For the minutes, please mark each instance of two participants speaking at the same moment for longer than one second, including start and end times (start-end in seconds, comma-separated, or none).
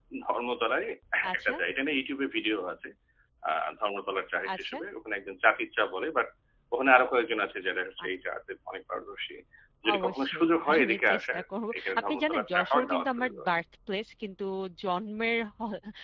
9.9-11.4, 11.8-13.4